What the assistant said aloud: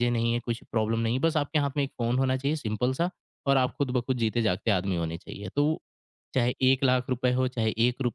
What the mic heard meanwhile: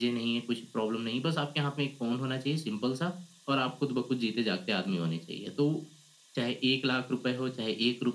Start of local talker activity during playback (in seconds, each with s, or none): none